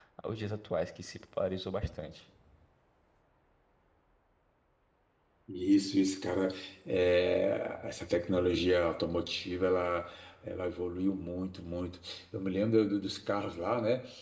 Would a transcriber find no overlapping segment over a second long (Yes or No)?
Yes